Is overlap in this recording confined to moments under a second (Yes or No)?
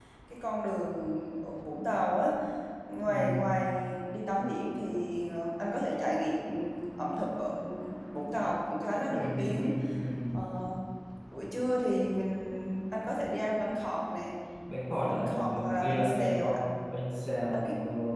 No